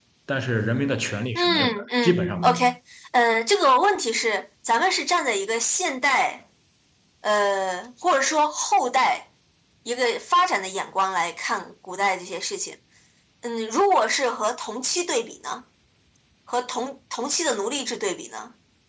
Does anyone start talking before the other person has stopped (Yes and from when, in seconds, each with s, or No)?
Yes, from 1.4 s